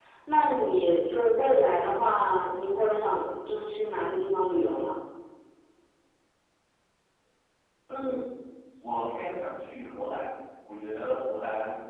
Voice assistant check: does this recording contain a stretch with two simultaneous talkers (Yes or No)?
No